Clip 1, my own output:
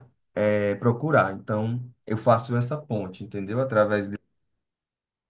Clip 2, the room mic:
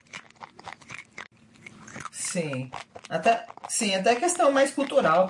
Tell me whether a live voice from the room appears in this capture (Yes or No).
Yes